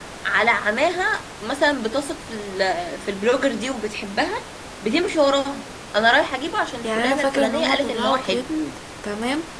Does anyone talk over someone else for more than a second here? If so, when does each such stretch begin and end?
6.8-8.5

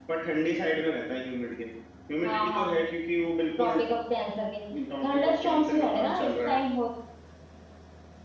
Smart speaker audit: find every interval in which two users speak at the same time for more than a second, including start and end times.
5.0-6.6

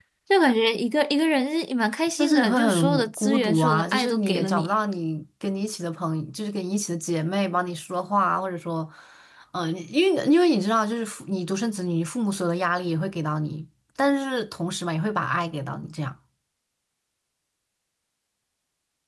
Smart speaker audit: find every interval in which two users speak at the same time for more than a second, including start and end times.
2.2-4.7

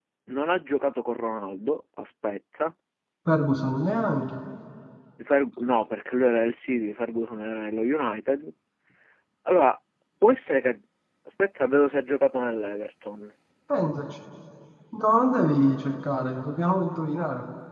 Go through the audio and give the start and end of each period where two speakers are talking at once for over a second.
none

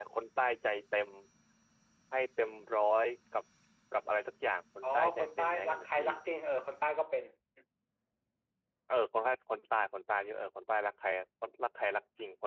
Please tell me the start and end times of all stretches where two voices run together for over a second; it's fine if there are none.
4.8-6.1

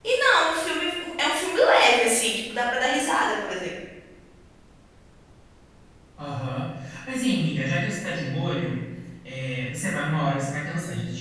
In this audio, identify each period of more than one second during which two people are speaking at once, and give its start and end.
none

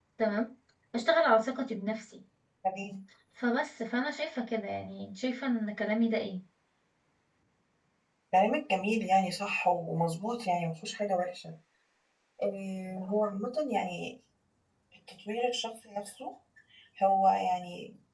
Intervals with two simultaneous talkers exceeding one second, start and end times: none

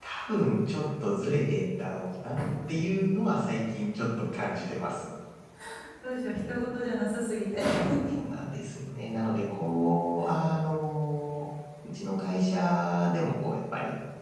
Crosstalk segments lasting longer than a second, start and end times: none

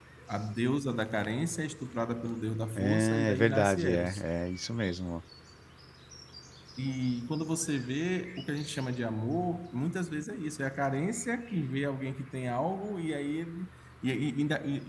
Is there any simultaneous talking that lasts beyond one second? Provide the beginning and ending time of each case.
2.8-4.2

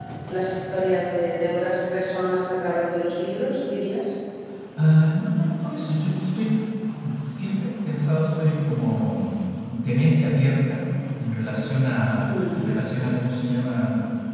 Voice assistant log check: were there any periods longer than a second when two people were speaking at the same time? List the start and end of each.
none

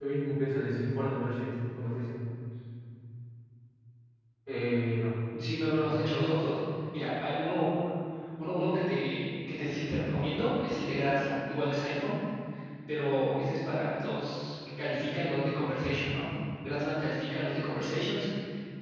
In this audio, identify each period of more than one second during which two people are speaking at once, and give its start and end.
none

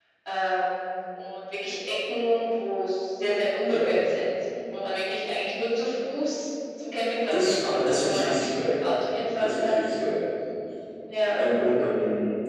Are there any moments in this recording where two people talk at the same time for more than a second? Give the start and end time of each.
7.3-8.8

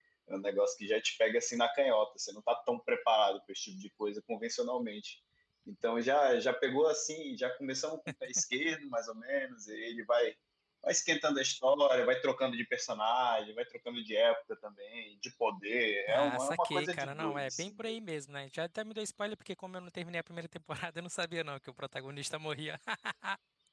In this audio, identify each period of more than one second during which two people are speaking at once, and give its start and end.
16.1-18.0

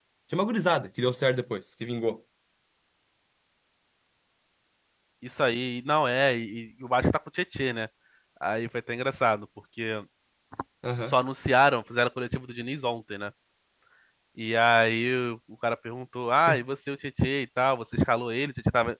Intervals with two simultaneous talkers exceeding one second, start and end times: none

